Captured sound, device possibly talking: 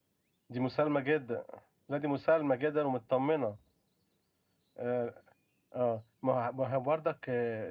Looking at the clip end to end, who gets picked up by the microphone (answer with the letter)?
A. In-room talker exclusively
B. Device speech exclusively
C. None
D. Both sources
A